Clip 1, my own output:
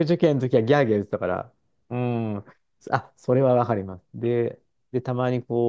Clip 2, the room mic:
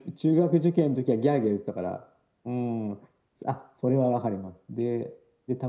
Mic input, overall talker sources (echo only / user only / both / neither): echo only